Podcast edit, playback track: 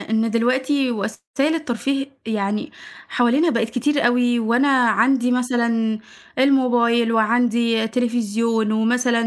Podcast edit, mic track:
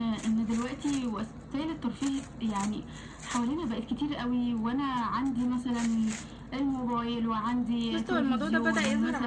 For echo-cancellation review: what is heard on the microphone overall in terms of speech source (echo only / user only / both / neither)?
both